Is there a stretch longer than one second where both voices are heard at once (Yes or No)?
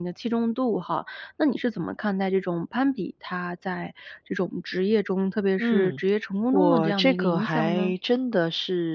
Yes